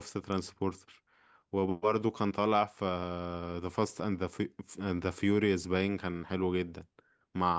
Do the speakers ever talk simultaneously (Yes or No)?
No